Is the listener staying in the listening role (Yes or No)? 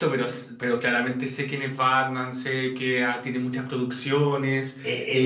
No